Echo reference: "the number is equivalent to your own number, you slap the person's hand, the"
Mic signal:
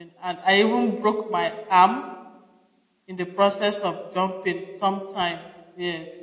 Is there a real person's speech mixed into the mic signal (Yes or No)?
Yes